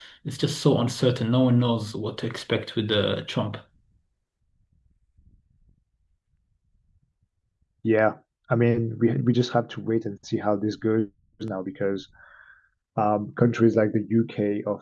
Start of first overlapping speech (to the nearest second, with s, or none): none